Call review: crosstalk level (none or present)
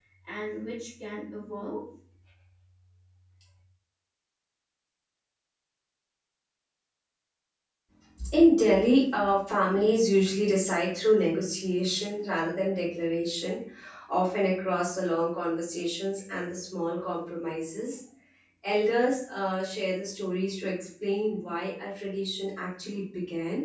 none